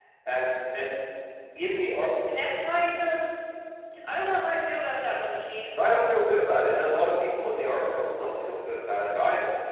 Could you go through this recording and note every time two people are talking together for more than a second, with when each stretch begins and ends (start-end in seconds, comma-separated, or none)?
none